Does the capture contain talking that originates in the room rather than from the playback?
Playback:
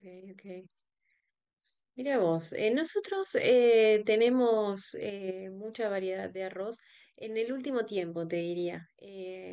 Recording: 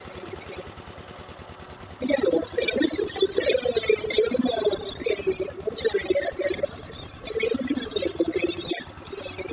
No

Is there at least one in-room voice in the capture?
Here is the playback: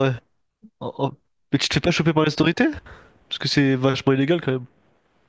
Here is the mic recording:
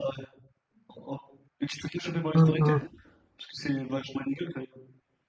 Yes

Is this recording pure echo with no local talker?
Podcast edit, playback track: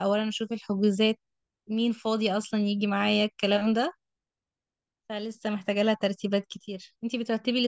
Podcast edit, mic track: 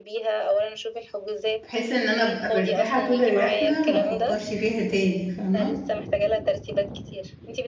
No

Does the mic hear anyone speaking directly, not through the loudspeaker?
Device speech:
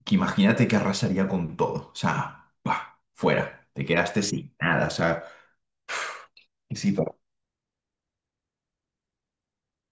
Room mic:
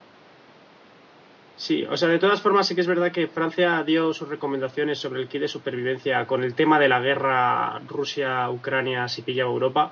Yes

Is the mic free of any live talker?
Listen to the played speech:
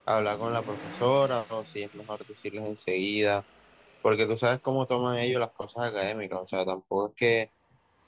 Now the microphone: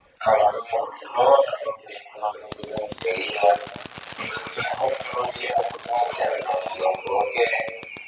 Yes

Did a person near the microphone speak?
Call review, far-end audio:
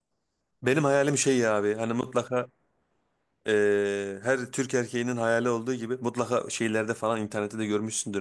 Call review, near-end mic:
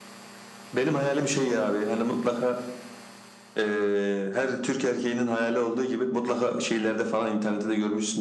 No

